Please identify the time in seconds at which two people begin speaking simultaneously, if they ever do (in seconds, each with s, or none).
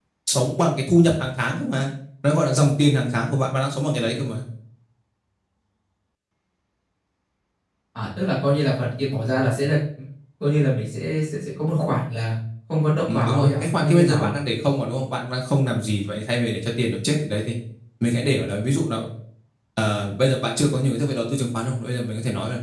13.1 s